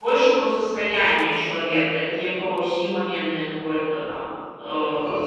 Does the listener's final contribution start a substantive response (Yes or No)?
Yes